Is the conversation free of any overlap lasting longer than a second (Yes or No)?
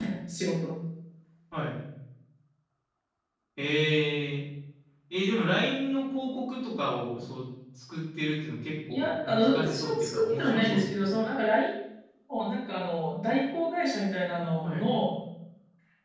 No